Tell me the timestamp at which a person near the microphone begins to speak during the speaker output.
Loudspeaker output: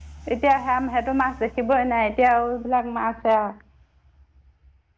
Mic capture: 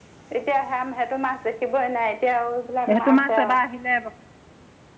2.9 s

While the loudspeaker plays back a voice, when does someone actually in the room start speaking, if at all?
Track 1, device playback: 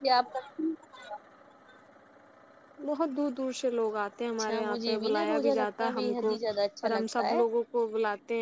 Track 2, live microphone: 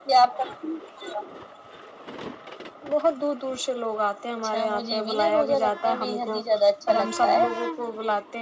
none

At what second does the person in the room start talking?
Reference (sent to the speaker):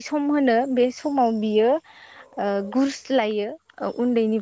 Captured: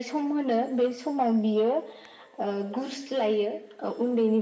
none

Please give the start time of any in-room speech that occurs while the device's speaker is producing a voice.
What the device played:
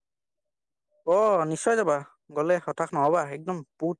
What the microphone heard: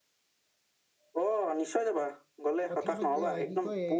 2.7 s

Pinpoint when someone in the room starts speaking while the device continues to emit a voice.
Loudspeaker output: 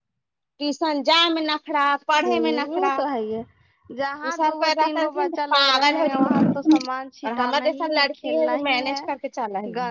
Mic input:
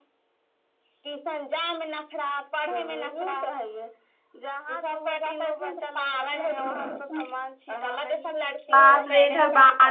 8.7 s

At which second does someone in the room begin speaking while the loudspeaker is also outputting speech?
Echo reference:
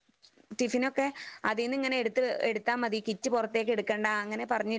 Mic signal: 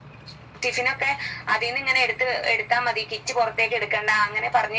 none

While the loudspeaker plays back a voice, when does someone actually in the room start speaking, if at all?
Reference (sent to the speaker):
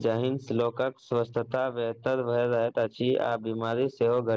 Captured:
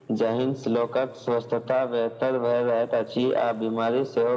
none

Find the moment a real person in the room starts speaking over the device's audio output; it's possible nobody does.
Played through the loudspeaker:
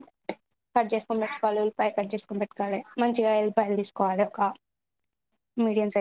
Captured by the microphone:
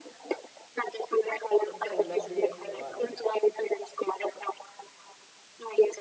1.6 s

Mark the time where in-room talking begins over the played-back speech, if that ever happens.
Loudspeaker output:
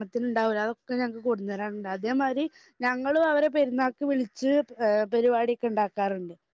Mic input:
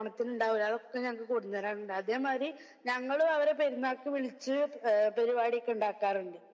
none

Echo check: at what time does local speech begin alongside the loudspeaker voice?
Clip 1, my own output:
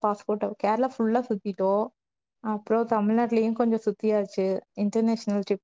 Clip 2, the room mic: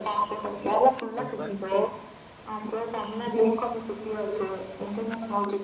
1.2 s

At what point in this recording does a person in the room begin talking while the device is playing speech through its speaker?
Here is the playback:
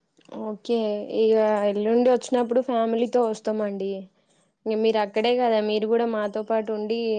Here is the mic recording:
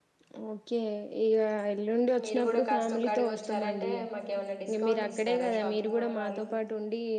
2.2 s

